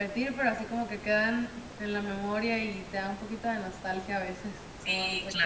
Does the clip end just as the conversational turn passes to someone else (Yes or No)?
Yes